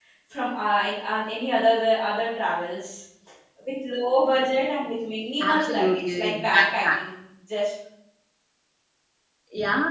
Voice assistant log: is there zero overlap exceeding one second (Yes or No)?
No